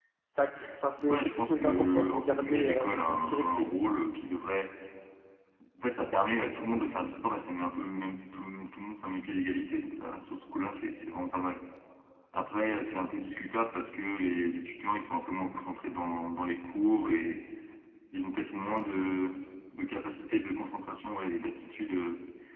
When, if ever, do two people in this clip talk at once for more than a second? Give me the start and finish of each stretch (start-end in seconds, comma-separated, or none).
1.1-3.7